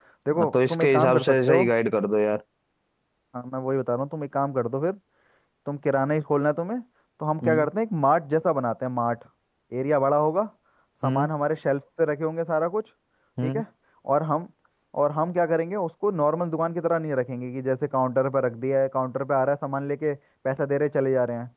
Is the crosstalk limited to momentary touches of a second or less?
No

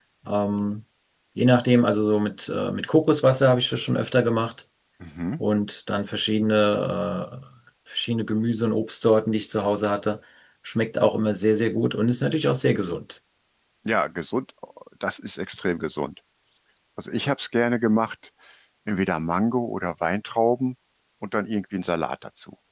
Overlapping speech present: No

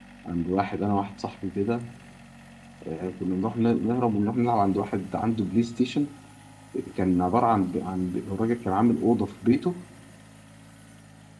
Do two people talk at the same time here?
No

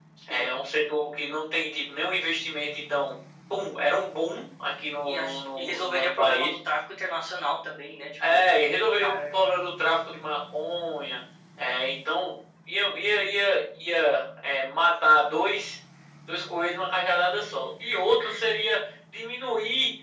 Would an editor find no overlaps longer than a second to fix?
No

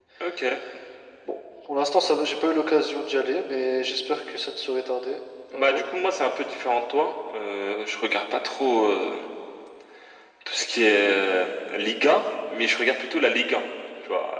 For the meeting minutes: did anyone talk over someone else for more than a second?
No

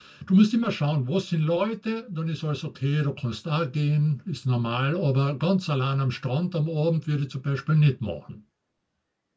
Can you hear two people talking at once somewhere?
No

